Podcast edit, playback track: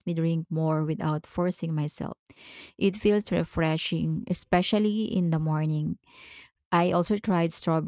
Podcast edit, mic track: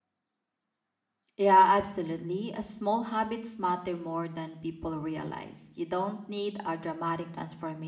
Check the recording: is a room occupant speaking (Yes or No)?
Yes